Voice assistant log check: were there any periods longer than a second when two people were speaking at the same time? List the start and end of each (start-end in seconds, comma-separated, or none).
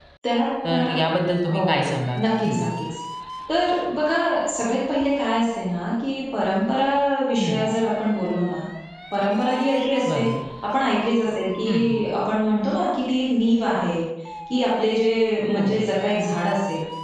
none